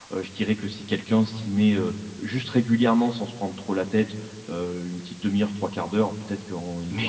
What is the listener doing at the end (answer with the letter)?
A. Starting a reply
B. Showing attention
B